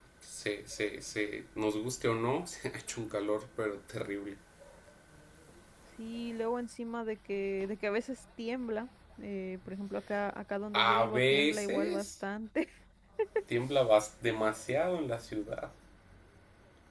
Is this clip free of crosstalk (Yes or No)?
No